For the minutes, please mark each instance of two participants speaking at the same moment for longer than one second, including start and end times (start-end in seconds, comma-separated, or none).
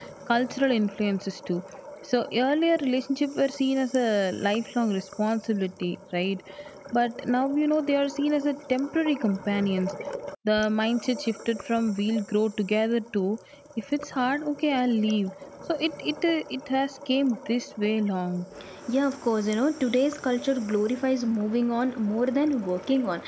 none